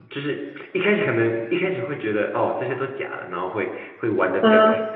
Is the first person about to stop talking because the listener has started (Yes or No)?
No